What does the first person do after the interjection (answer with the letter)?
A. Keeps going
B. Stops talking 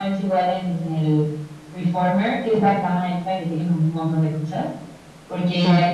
A